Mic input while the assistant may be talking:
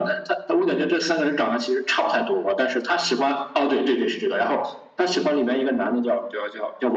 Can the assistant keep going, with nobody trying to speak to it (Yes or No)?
Yes